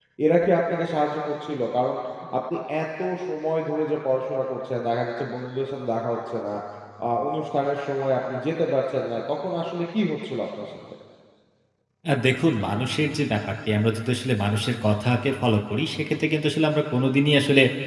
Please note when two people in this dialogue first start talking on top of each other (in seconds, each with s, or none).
none